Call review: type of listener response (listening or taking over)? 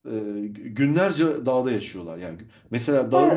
taking over